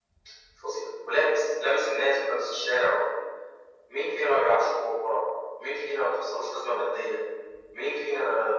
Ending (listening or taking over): listening